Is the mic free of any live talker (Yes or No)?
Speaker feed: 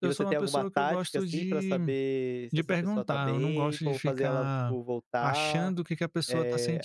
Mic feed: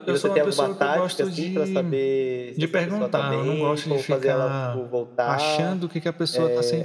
Yes